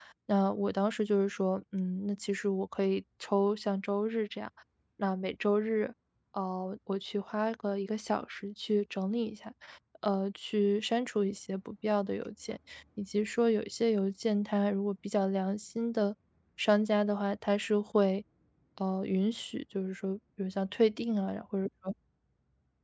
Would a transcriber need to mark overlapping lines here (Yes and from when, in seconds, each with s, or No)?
No